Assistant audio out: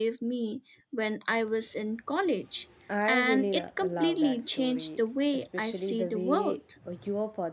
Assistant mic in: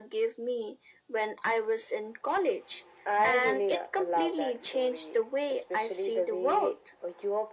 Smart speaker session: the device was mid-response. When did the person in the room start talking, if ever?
none

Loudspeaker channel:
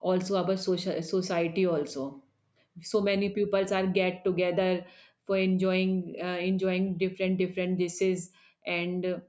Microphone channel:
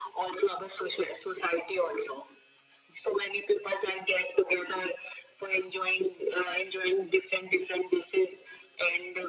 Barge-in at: none

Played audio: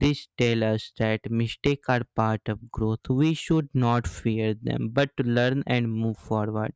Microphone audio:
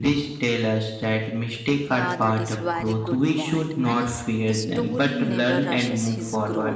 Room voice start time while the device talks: 1.9 s

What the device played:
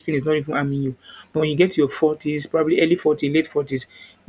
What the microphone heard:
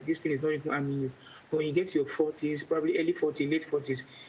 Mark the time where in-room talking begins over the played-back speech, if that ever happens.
none

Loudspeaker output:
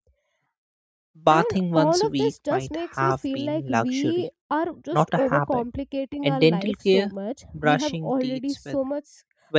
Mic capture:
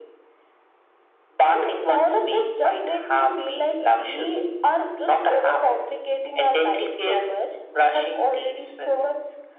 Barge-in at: none

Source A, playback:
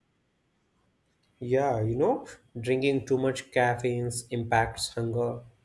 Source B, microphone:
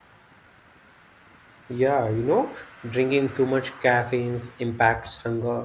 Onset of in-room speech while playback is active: none

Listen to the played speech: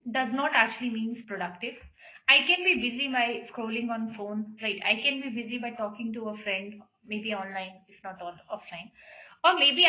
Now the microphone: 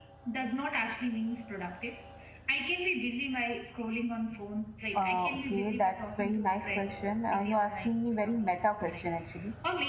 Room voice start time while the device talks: 5.0 s

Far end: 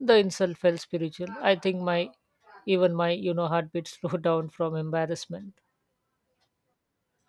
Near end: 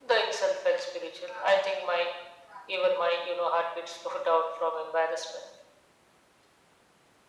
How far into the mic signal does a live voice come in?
none

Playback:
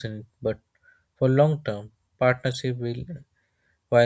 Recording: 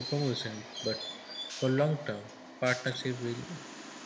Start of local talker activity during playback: none

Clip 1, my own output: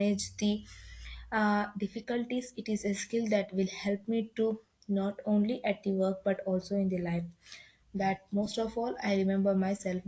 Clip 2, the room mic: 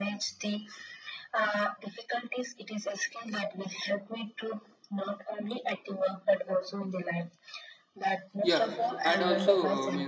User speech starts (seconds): 8.4 s

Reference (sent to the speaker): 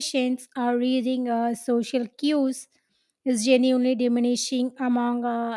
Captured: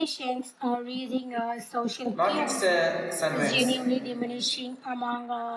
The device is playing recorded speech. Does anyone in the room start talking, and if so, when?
2.1 s

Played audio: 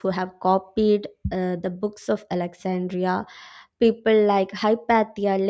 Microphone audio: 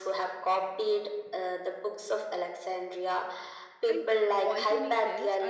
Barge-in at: 3.9 s

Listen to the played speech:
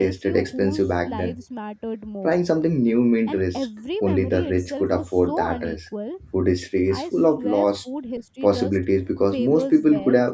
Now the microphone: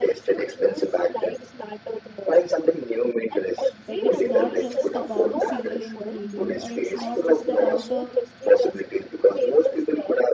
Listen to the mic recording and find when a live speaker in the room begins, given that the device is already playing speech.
3.9 s

